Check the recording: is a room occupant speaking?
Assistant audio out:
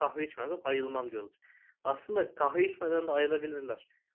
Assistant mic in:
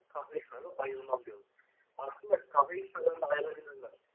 No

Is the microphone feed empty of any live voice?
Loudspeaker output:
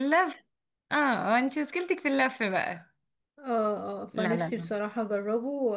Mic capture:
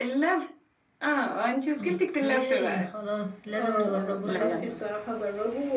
No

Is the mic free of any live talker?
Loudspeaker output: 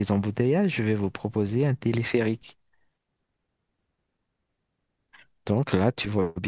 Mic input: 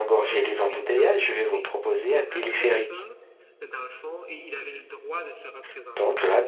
No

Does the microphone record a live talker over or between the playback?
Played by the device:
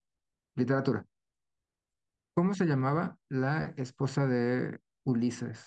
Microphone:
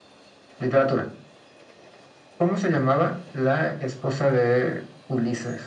No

